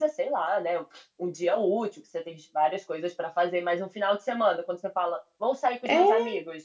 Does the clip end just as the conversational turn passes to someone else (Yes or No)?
No